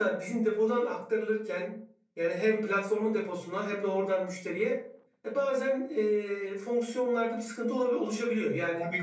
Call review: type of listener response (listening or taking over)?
taking over